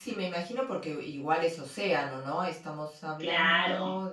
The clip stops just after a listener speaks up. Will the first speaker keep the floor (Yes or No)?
Yes